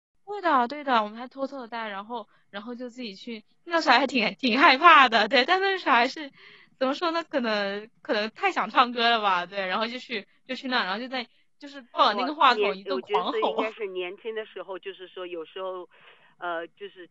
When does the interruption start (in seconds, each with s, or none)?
12.1 s